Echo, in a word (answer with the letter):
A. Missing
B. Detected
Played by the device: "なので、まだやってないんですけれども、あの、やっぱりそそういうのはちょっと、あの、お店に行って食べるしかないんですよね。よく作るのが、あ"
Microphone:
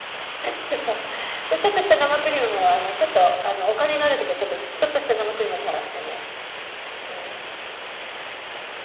A